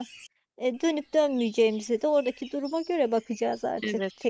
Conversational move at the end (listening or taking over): taking over